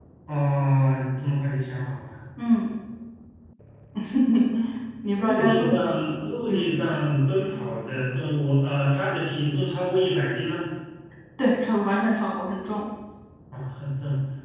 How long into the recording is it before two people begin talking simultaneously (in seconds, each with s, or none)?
5.1 s